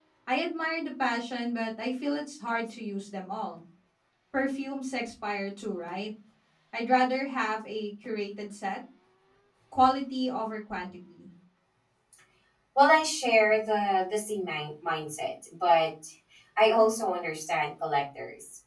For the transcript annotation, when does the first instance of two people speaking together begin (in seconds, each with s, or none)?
none